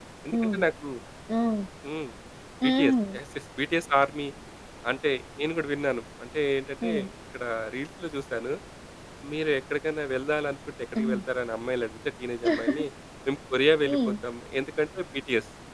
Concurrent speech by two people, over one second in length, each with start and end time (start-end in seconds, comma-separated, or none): none